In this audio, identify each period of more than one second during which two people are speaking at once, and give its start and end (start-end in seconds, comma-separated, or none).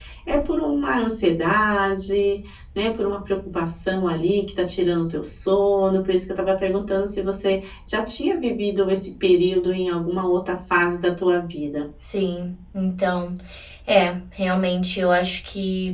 none